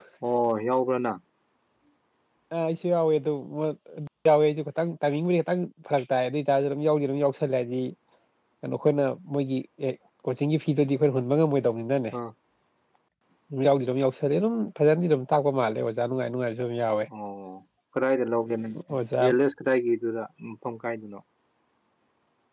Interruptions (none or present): none